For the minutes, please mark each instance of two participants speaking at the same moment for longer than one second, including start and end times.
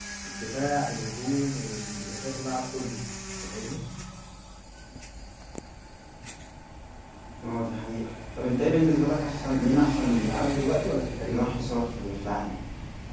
none

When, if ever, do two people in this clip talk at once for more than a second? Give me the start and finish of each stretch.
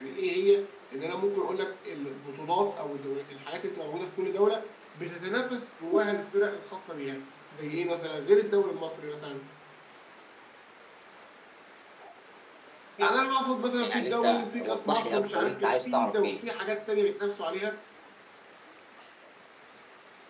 13.8-16.4

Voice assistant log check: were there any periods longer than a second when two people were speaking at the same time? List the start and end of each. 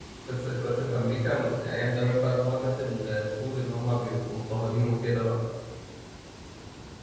none

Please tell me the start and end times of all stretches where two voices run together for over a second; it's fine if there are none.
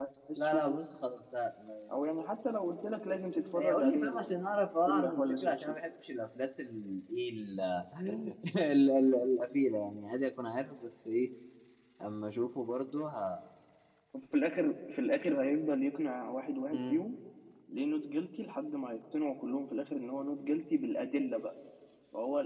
3.6-5.8

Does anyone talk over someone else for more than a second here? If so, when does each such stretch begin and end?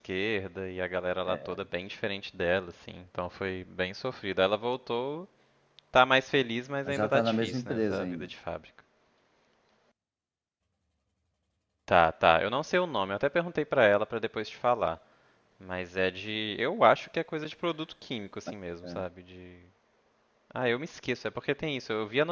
6.8-8.3

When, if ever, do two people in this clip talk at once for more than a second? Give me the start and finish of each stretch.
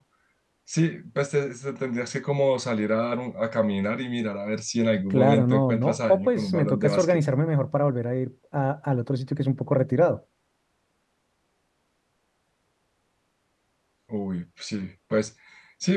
5.1-7.2

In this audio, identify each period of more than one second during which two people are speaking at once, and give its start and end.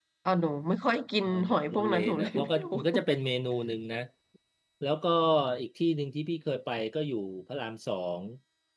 1.3-2.7

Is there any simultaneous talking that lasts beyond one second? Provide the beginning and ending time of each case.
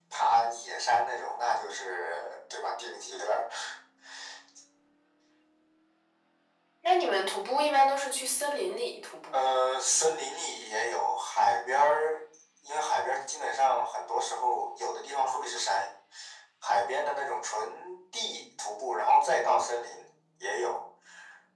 none

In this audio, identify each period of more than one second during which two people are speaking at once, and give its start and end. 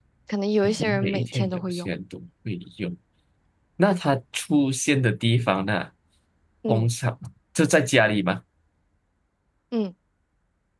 0.6-1.9

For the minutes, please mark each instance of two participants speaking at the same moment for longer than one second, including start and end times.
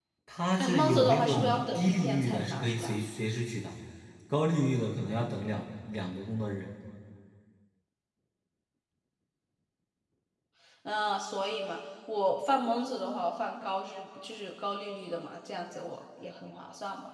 0.6-3.0

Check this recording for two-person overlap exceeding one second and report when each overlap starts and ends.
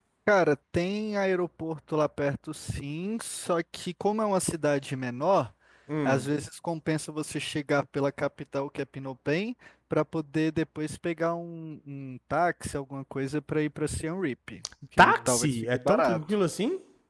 15.0-16.2

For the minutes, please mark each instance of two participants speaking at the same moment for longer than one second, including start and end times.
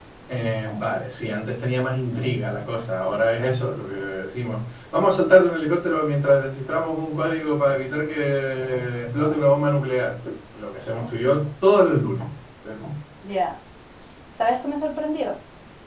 none

